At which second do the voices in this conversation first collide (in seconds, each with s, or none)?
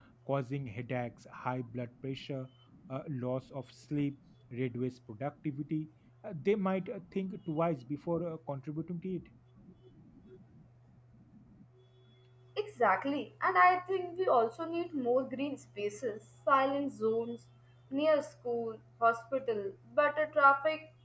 none